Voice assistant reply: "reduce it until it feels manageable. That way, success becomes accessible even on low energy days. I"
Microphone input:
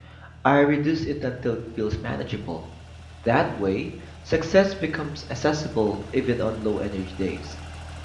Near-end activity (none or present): none